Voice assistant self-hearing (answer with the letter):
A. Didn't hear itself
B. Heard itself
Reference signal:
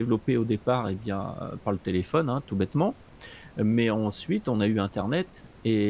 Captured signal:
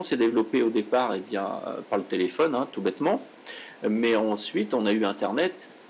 B